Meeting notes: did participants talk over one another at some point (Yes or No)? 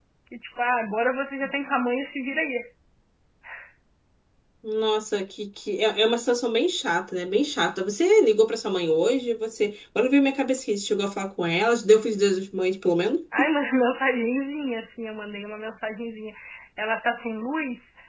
No